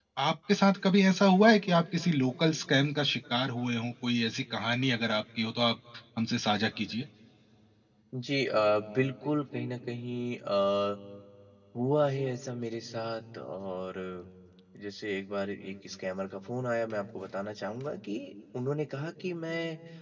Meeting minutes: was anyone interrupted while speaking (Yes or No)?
No